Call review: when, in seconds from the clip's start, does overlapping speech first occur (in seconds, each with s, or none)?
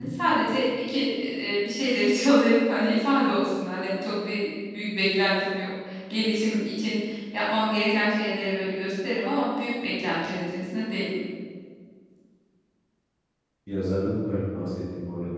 none